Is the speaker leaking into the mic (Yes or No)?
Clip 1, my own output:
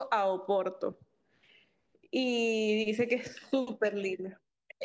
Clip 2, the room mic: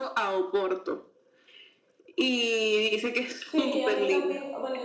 Yes